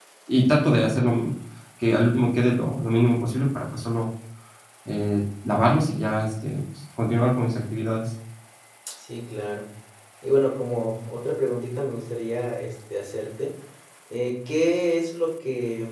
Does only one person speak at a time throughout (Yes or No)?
Yes